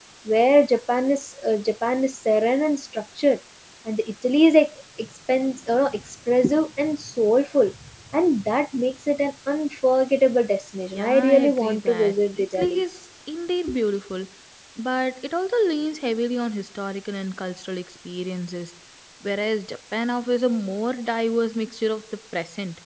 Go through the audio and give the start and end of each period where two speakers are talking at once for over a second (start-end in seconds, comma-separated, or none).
10.9-12.8